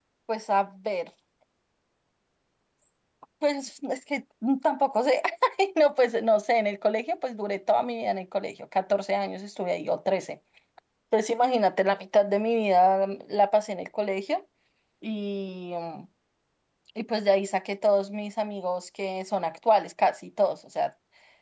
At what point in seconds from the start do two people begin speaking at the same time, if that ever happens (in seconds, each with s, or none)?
none